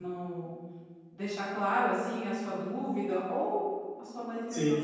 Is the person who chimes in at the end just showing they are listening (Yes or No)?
Yes